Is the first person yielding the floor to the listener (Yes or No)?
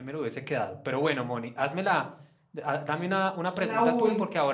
No